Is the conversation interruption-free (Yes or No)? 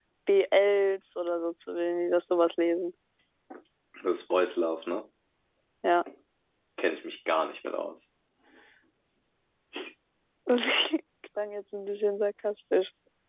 Yes